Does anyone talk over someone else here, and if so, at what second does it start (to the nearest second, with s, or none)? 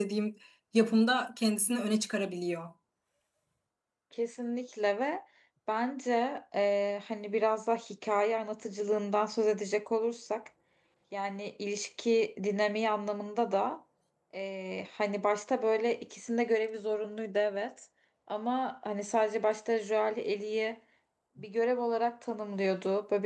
none